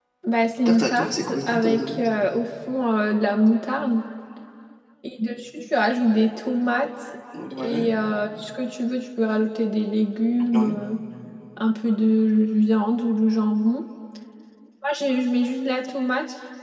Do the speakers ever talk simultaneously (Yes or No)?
Yes